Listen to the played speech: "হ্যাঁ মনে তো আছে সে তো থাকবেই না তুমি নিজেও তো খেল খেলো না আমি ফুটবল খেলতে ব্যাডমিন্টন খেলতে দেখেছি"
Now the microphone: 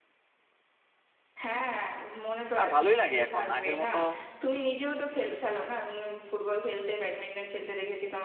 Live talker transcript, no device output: আর ভালোই লাগে এখন আগের মতো

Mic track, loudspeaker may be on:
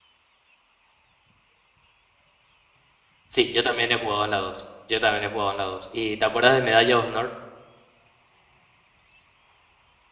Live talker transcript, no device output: Sí, yo también he jugado en la dos Yo también he jugado en la dos ¿Y te acuerdas de Medalla de Honor?

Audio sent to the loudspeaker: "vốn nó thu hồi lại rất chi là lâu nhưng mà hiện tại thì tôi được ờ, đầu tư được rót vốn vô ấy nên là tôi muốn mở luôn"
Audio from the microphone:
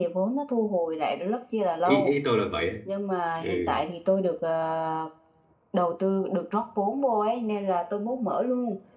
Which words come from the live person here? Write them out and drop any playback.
ý ý tôi là vậy ấy. ừ

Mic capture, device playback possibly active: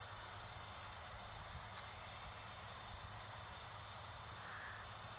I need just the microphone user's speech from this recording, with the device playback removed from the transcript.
none

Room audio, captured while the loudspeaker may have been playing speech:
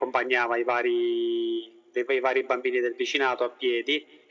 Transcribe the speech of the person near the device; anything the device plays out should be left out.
none

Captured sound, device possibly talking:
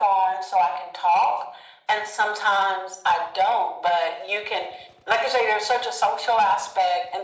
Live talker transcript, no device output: none

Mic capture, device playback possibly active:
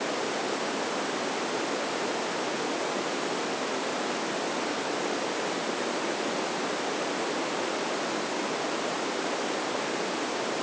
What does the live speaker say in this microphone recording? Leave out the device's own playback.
none

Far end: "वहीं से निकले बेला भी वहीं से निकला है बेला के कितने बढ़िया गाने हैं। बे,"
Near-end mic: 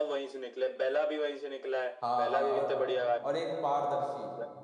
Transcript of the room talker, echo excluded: हाँ हाँ और और एक पारदर्शी

